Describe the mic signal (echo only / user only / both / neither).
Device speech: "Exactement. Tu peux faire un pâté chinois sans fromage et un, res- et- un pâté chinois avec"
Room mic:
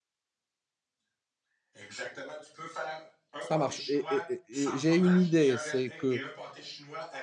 both